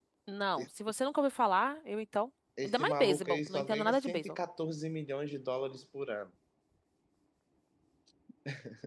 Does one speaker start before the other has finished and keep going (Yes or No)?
Yes